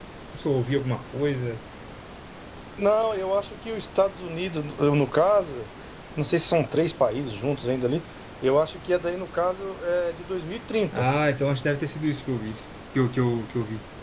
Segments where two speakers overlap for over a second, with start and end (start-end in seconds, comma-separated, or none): none